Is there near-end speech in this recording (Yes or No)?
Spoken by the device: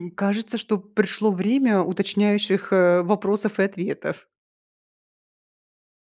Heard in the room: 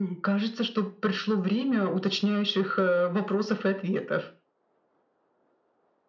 No